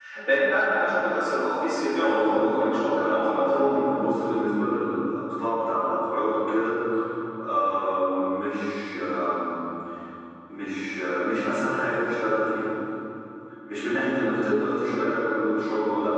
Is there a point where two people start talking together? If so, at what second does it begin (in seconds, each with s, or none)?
2.0 s